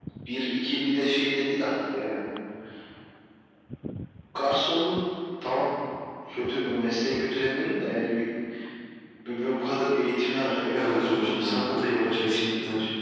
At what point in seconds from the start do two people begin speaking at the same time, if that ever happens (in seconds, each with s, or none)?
10.8 s